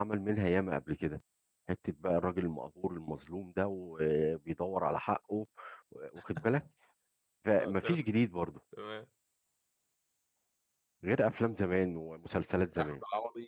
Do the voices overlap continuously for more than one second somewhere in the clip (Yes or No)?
No